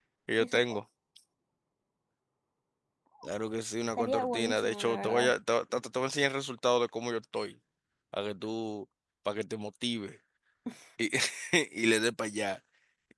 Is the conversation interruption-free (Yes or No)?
No